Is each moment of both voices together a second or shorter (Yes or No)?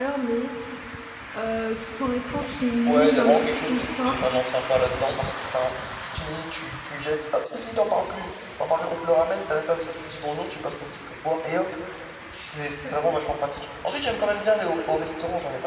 No